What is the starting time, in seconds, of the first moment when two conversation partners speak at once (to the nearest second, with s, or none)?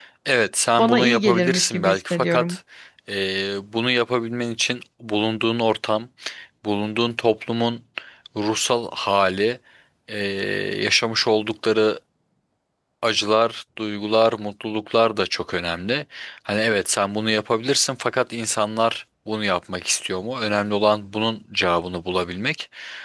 1 s